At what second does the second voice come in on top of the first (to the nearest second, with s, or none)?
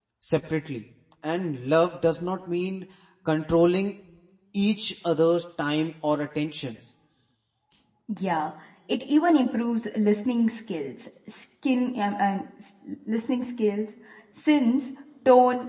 none